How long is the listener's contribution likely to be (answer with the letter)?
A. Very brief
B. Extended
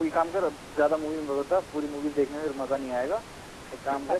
A